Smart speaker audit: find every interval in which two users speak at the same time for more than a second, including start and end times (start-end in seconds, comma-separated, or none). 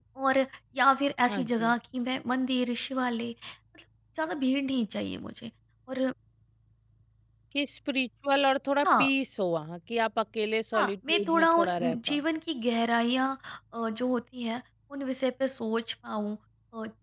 10.7-12.2